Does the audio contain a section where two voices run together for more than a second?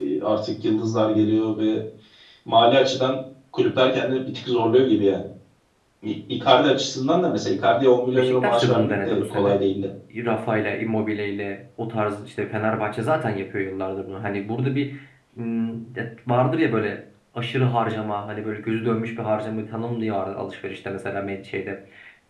Yes, from 8.2 s

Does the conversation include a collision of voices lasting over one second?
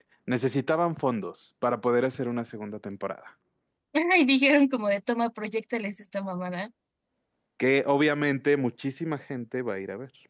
No

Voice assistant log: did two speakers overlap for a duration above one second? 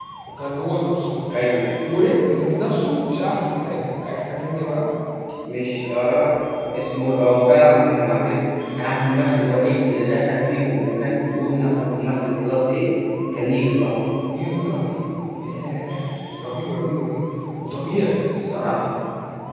No

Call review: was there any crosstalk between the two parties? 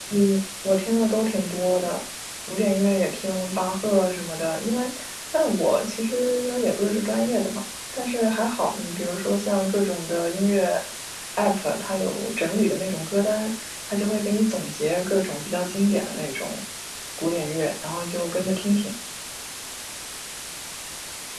No

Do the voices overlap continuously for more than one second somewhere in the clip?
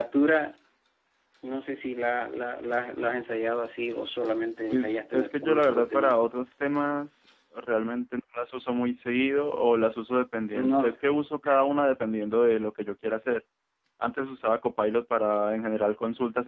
Yes, from 4.7 s

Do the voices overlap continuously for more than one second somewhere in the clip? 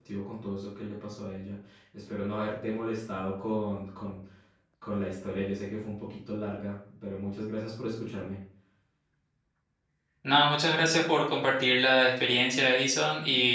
No

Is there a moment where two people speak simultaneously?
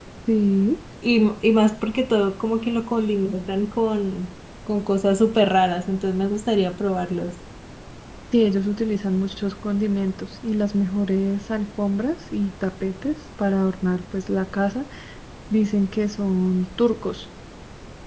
No

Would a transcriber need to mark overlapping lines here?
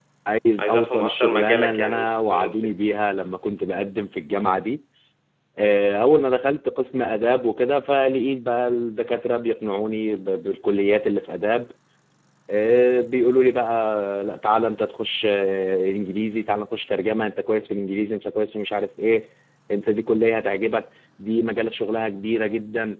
Yes, from 0.6 s

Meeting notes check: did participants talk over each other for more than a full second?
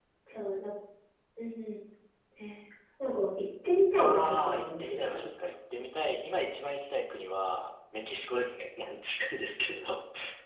Yes, from 4.0 s

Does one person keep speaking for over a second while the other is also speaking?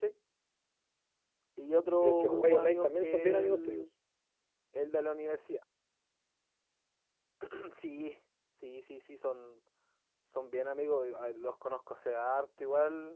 Yes, from 2.0 s

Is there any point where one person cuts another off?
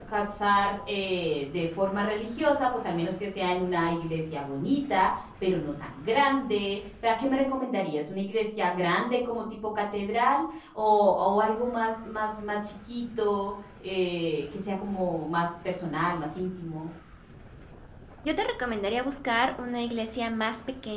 No

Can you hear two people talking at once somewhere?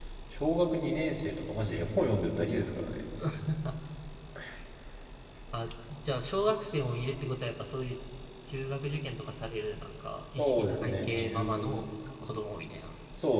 Yes, from 10.4 s

